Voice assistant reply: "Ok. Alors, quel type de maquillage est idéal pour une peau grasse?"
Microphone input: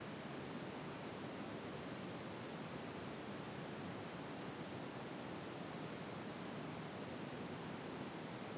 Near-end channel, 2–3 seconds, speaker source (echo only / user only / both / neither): neither